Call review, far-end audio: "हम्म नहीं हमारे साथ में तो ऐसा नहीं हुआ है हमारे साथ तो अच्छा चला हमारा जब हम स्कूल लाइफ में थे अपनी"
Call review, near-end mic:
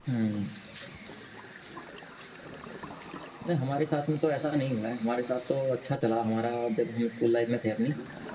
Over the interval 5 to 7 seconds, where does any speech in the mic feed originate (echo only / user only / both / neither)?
echo only